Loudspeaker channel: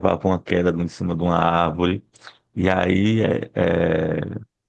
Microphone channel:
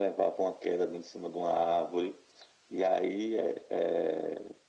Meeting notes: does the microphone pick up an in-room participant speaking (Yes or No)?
No